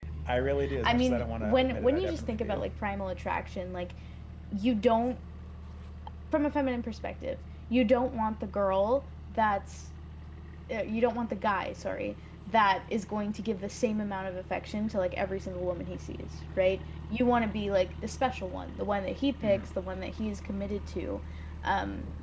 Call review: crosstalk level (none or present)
present